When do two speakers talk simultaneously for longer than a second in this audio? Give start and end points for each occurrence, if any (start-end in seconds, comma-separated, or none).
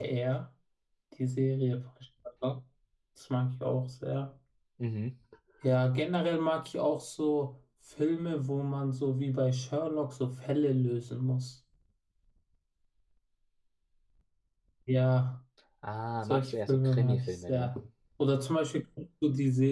16.2-17.7